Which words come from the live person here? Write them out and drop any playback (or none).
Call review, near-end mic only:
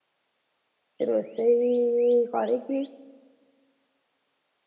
ରୋଷେଇ କରିକି